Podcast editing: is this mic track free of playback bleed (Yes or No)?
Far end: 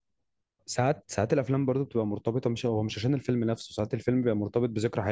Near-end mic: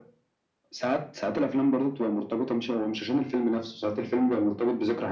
No